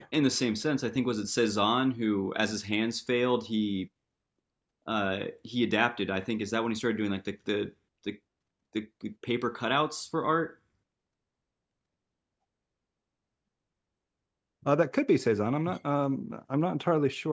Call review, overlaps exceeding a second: none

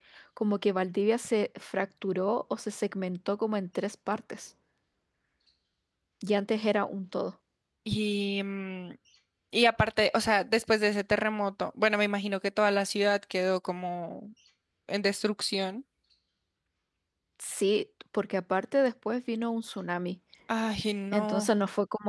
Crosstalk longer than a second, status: none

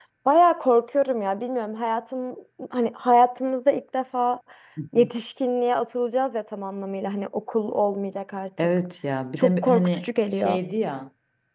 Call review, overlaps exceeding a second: present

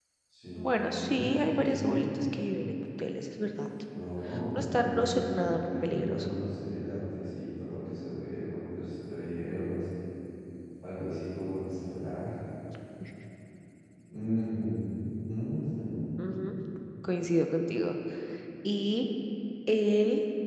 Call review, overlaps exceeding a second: present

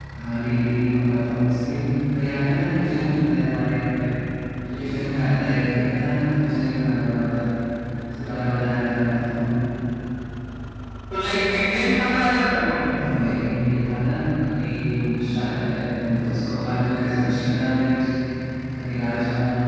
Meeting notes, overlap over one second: none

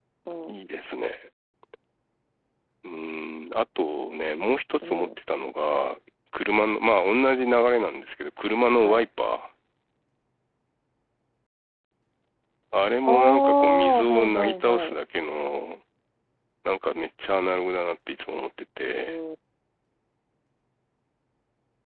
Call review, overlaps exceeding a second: present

